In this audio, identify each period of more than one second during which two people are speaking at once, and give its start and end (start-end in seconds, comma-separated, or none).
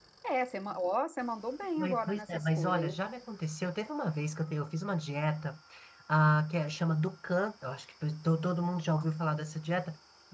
1.8-3.0